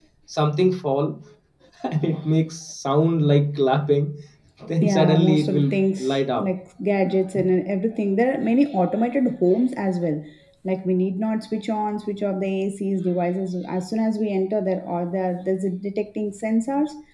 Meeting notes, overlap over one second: present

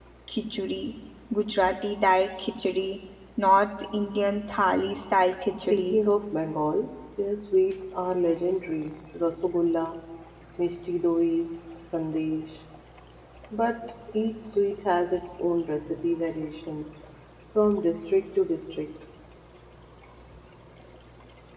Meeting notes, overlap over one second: none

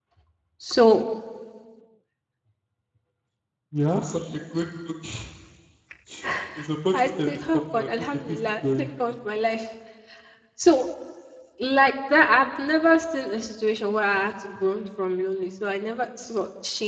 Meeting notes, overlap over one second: present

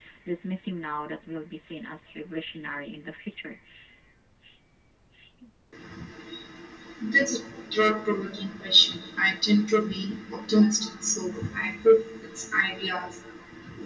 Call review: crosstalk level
none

